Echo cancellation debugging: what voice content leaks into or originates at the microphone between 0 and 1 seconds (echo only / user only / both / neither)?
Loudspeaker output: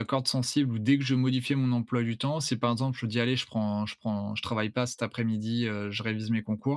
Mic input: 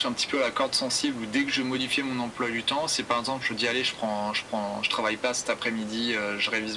echo only